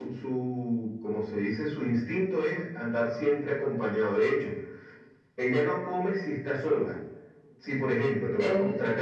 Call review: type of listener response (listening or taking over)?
listening